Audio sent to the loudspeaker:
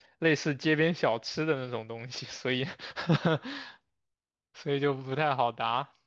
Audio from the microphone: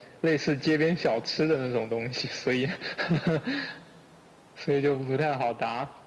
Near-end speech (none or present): none